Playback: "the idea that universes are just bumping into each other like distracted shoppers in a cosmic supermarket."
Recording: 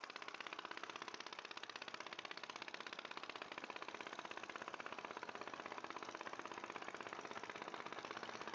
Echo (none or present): none